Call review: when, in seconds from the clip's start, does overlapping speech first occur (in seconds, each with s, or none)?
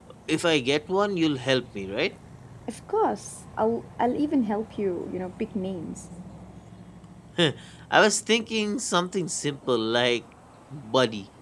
none